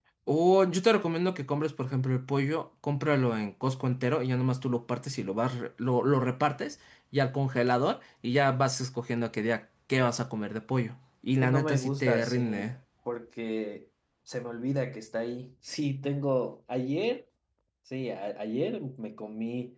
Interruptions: present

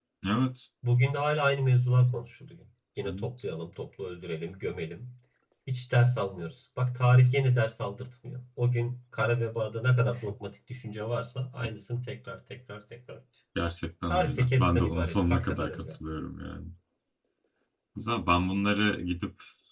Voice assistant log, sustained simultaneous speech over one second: present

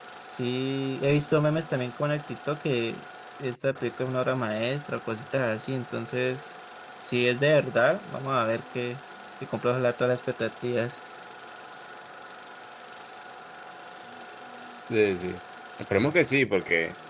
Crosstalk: none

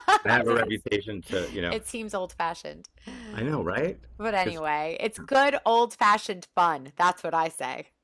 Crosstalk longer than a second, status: none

